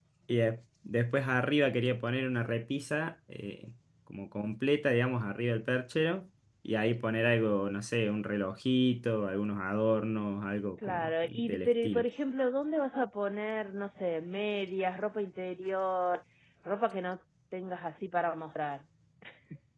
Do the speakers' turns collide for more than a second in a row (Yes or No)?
Yes